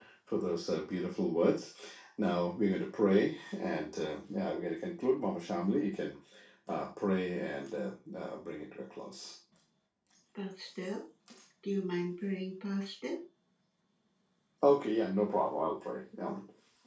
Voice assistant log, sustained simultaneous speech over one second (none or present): none